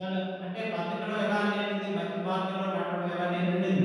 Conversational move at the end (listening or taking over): taking over